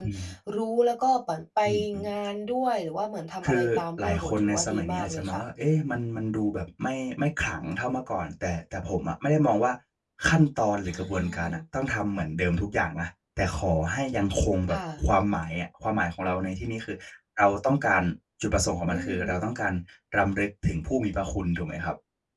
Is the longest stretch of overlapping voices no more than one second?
No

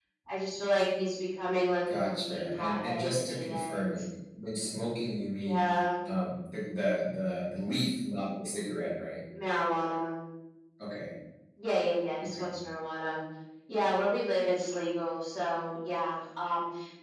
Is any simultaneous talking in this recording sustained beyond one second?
Yes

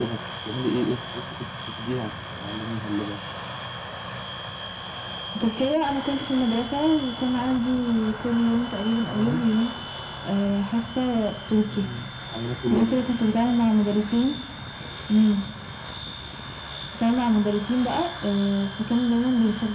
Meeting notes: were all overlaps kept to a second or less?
Yes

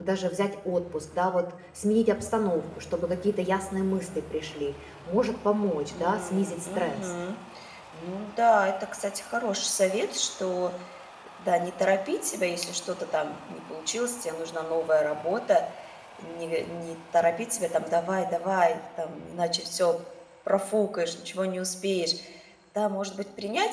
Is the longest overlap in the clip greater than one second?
Yes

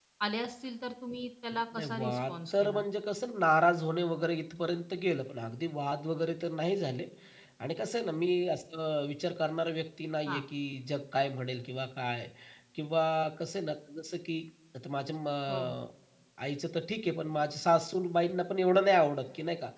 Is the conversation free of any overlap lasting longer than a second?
No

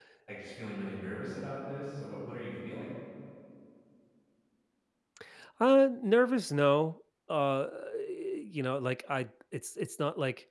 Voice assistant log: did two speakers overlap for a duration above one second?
No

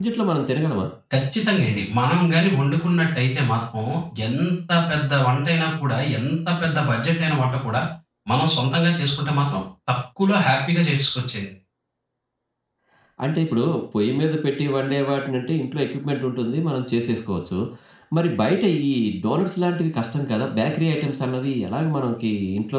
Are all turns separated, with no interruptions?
Yes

